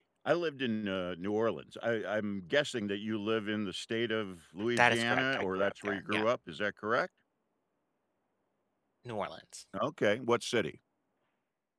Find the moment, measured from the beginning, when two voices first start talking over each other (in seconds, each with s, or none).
4.8 s